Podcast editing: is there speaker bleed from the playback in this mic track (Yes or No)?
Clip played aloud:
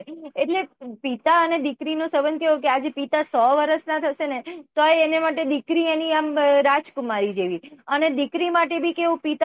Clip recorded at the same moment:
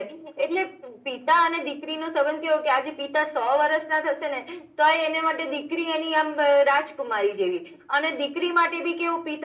Yes